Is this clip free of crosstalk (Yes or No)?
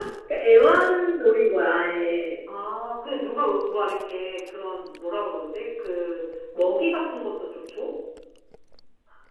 Yes